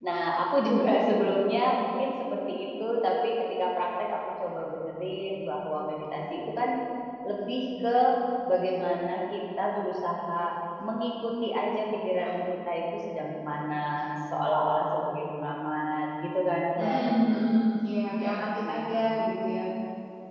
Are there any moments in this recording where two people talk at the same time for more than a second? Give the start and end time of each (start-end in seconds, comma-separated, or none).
none